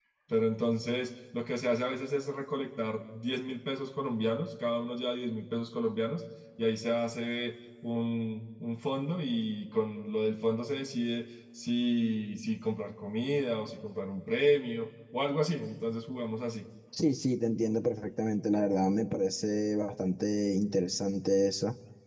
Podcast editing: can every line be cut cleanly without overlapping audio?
Yes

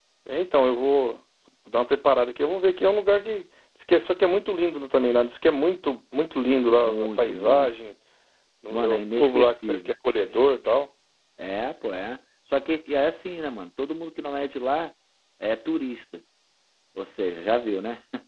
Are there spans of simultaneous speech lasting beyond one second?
Yes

